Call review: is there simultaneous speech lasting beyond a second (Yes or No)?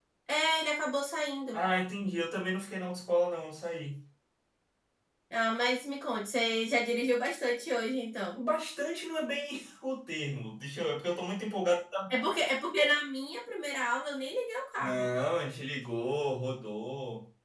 No